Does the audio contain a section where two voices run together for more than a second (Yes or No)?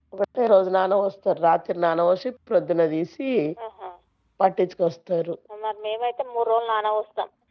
No